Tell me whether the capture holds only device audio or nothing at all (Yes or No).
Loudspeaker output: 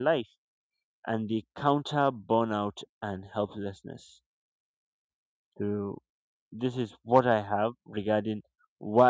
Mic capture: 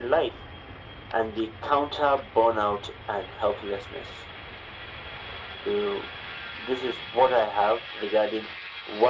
Yes